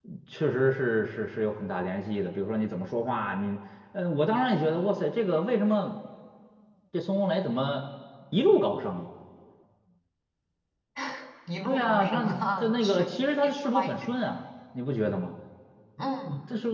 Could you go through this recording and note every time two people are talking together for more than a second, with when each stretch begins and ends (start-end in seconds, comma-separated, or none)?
11.7-13.9